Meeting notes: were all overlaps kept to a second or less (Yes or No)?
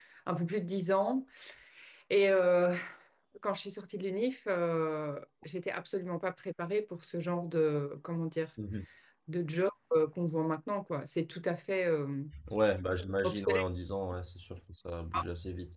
Yes